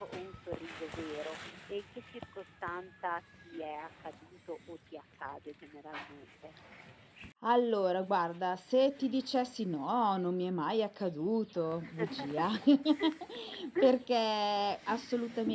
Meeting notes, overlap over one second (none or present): none